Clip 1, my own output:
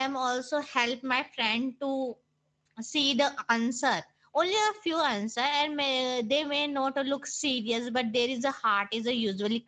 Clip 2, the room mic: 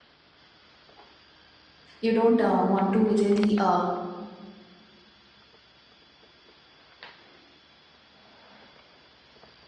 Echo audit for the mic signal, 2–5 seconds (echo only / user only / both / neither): user only